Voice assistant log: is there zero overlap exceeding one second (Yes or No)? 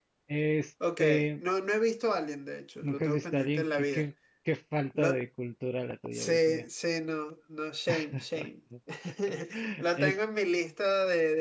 No